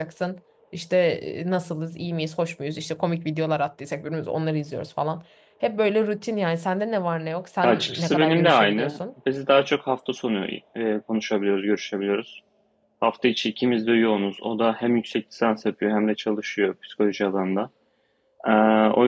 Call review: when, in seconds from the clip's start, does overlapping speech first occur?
7.6 s

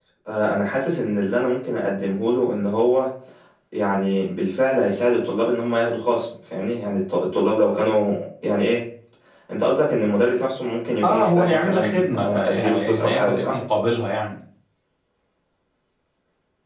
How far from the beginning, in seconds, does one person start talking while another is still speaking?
11.0 s

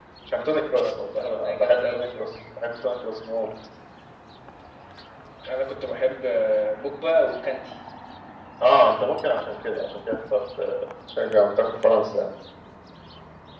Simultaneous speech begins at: 0.7 s

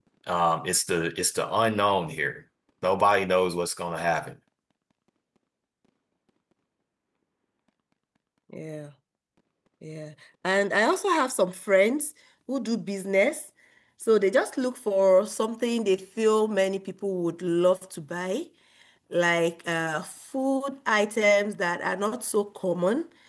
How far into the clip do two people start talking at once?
none

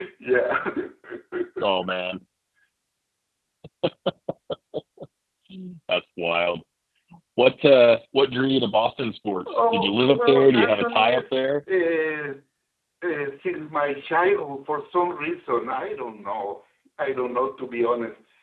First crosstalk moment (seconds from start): 9.5 s

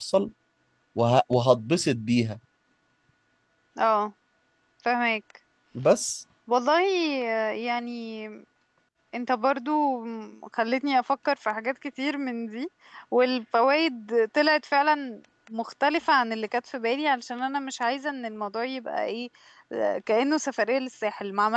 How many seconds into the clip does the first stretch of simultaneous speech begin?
none

